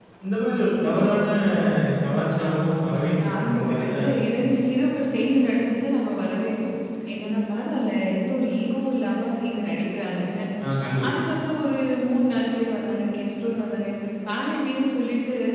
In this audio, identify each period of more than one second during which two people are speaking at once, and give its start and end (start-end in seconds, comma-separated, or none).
2.4-4.6